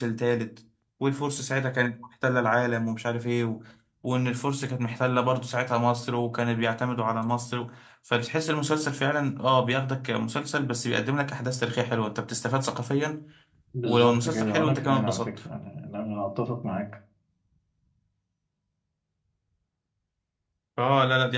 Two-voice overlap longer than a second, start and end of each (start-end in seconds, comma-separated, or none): 13.8-15.3